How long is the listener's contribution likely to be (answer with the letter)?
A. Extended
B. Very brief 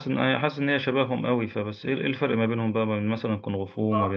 A